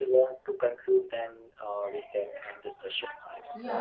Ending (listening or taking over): taking over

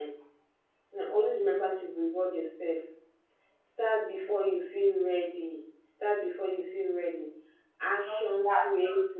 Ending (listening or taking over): listening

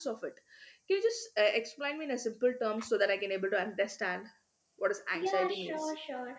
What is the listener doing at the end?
taking over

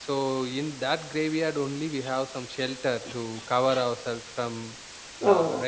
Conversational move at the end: taking over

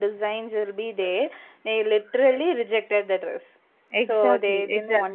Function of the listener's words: taking over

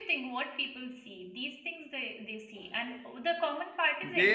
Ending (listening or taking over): taking over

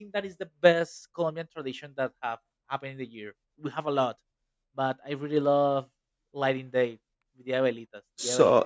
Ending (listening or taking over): taking over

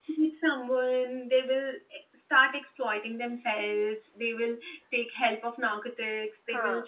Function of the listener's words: listening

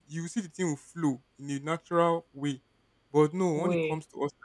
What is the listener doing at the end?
listening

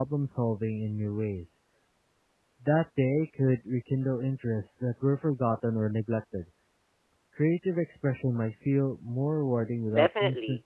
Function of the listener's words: taking over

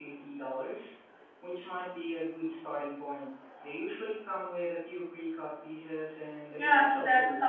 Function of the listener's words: taking over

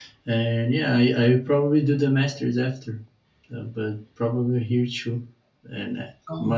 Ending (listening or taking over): listening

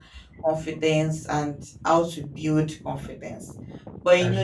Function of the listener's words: listening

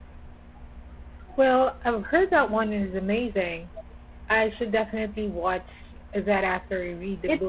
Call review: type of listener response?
taking over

